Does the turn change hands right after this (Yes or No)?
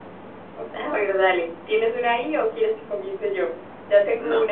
Yes